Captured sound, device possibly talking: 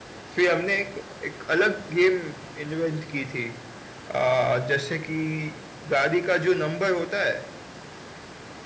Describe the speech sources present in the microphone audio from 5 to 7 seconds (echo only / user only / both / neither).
echo only